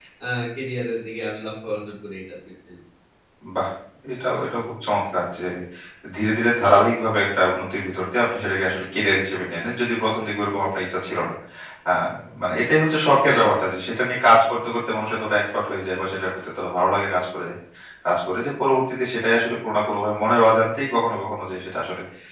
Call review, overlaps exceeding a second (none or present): none